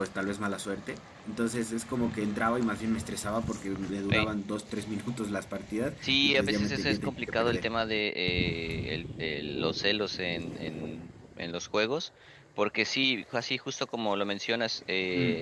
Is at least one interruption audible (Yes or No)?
Yes